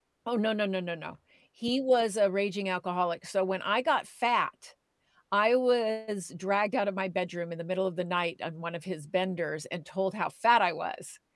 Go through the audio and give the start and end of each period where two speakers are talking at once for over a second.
none

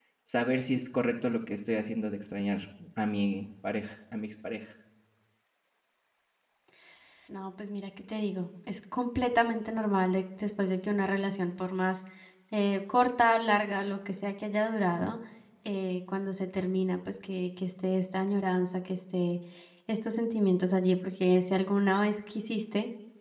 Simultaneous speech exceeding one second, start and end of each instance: none

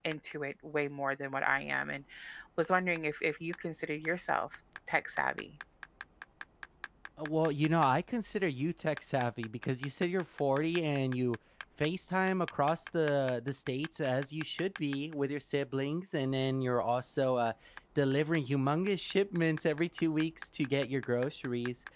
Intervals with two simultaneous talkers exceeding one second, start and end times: none

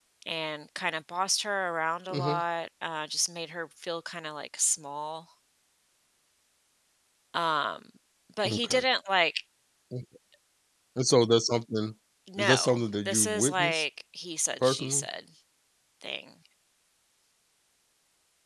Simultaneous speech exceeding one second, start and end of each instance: 12.4-13.8

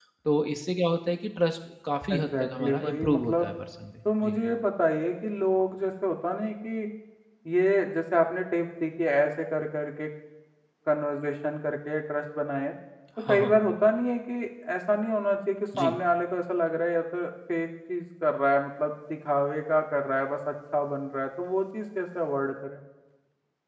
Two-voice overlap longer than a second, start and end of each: 2.1-3.5

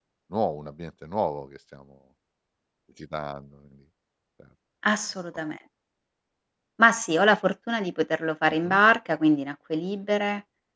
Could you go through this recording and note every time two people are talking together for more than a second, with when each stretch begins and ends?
none

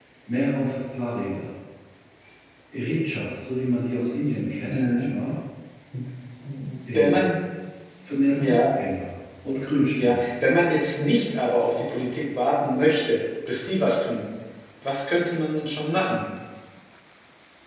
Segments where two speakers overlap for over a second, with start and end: none

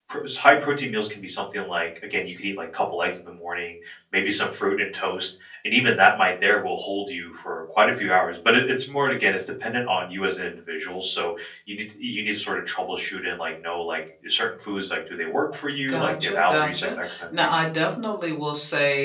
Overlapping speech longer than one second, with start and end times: 15.9-17.4

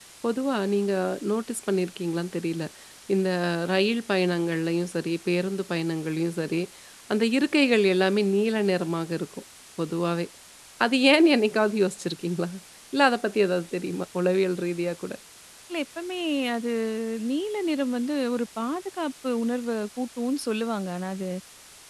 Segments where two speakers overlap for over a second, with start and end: none

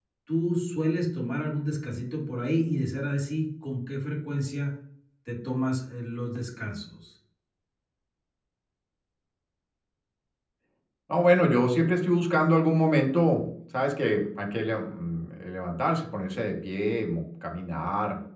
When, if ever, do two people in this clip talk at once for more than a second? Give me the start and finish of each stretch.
none

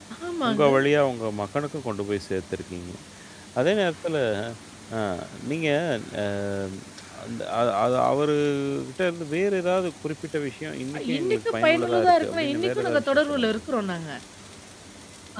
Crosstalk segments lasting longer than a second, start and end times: 11.2-13.6

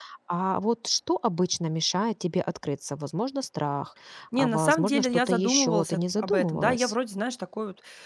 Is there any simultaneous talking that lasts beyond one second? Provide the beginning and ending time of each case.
4.4-6.9

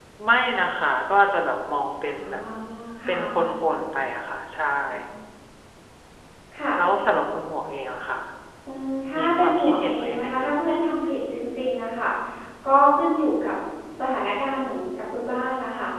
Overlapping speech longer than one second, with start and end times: 9.2-10.5

